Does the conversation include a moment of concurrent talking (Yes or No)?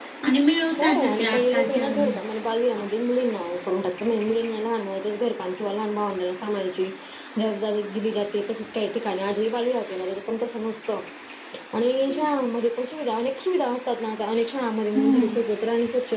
Yes